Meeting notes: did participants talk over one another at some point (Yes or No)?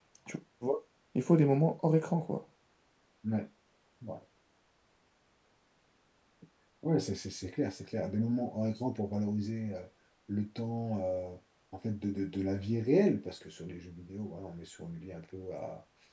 No